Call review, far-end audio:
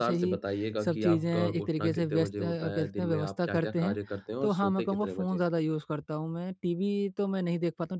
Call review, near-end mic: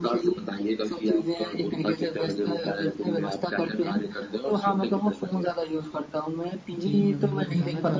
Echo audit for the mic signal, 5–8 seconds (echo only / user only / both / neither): both